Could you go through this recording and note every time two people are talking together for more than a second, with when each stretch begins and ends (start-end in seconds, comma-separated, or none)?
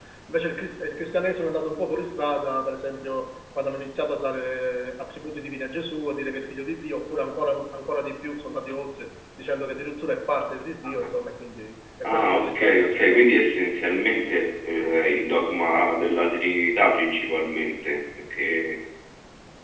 12.1-13.3